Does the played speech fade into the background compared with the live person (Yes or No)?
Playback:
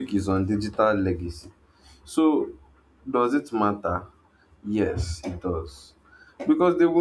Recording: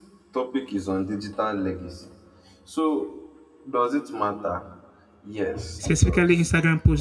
Yes